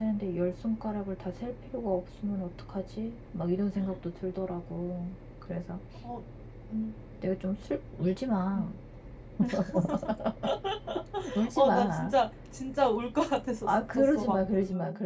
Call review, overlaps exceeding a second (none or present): present